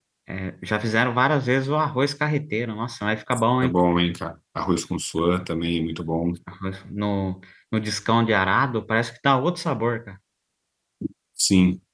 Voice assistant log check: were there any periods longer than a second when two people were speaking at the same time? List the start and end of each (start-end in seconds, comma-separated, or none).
none